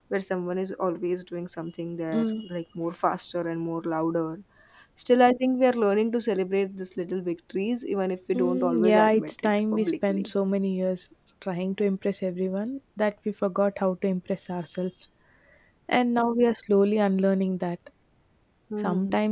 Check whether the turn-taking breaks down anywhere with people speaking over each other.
Yes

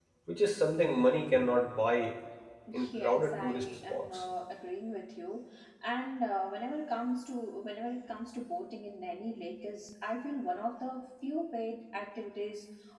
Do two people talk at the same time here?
Yes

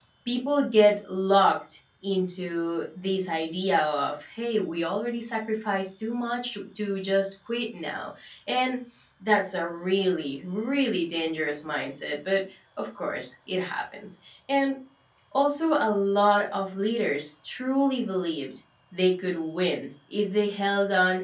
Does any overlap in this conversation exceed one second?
No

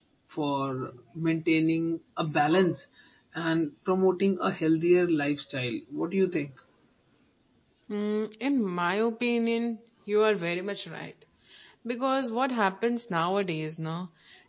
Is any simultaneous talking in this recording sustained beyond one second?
No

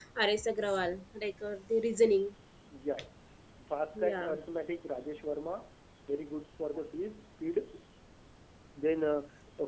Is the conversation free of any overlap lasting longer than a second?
Yes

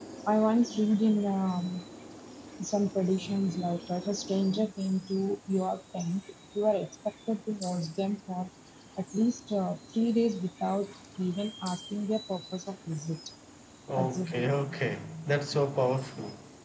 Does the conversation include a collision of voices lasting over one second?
Yes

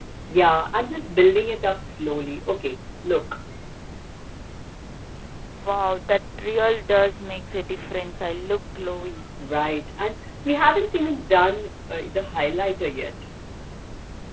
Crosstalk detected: No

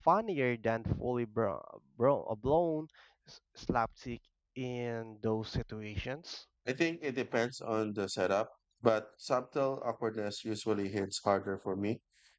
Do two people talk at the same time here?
No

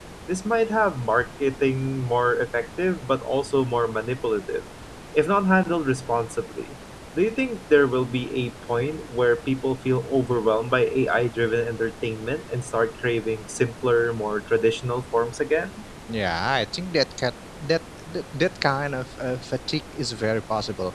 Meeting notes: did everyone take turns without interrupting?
Yes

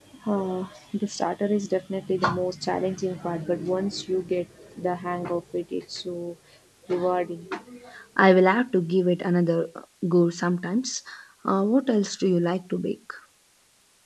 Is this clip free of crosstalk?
Yes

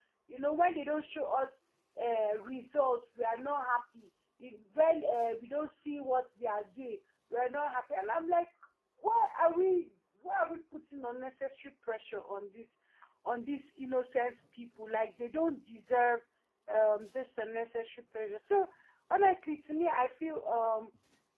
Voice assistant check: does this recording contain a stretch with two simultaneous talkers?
No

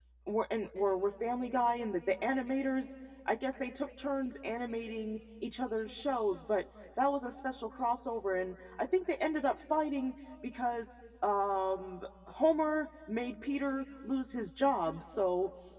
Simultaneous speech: No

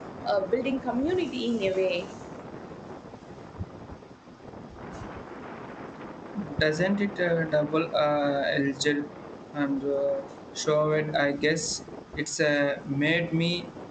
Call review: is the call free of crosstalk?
Yes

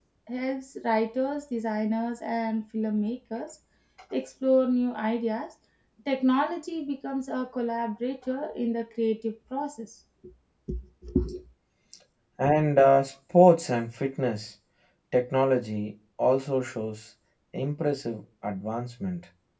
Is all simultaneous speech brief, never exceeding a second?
Yes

